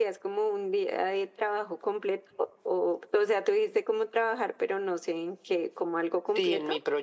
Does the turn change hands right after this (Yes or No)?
Yes